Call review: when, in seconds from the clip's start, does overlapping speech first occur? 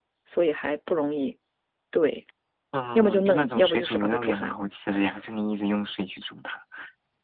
3.0 s

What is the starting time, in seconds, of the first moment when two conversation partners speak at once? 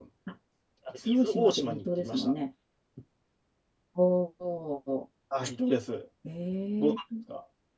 1.0 s

